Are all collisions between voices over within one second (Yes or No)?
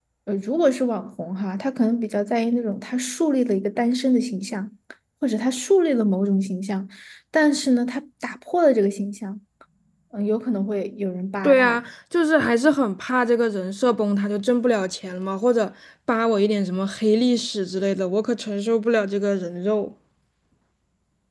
Yes